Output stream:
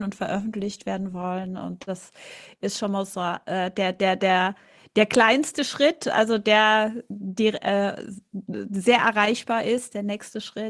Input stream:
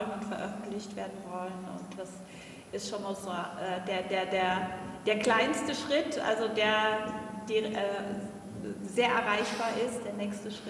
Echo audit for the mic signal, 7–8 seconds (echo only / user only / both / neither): echo only